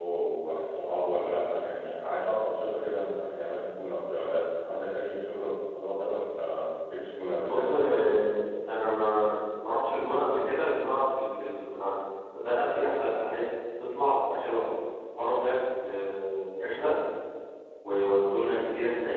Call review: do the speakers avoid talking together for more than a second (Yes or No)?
Yes